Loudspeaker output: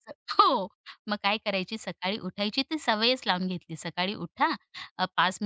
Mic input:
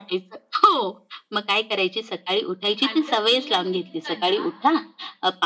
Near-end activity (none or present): present